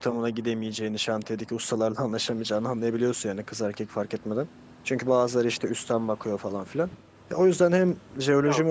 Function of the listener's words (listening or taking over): listening